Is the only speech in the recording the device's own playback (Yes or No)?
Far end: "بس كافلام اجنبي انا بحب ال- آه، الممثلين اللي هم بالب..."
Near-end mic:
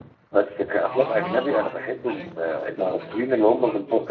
No